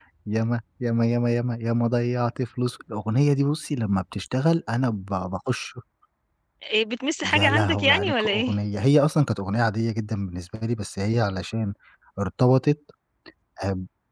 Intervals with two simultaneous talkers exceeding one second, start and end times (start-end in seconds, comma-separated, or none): 7.2-8.6